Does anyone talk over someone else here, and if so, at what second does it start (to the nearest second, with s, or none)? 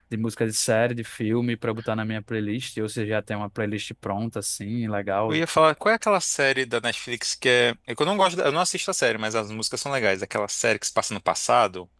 none